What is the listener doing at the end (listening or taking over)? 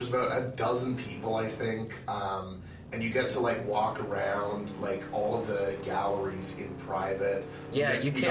taking over